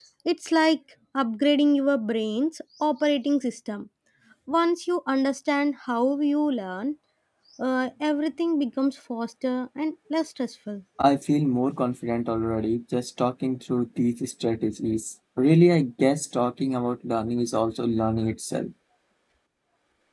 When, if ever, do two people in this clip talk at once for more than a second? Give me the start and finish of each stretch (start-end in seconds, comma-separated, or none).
none